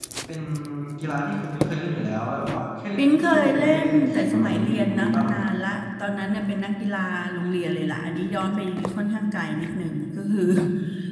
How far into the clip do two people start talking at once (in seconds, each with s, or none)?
3.0 s